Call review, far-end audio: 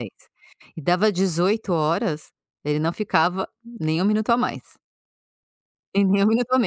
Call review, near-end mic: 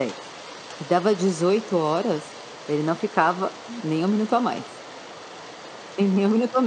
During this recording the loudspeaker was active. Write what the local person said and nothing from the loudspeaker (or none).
none